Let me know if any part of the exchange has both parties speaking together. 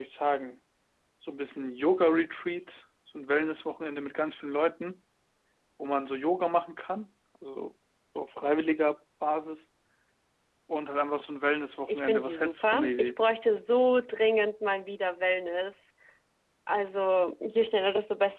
Yes, from 11.9 s

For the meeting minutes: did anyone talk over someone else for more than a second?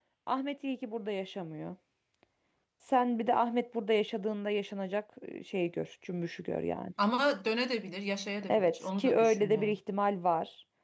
Yes, from 8.4 s

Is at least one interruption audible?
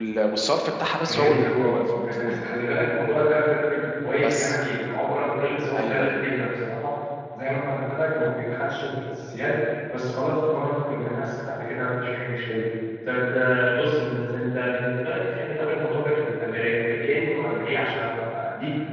Yes, from 1.0 s

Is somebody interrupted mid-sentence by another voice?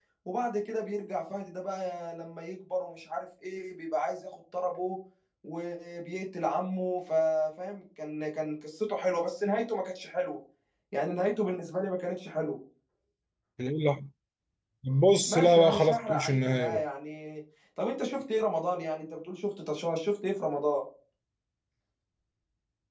Yes, from 15.3 s

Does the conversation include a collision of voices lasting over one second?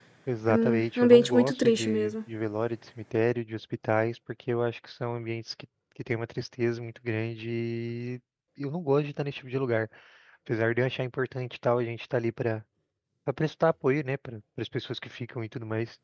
Yes, from 0.5 s

